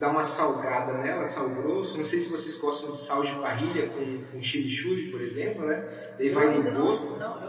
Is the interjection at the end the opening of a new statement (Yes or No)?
Yes